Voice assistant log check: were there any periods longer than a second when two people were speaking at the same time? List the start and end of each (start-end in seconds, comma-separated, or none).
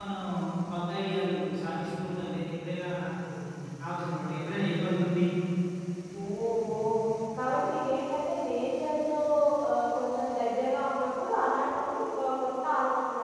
none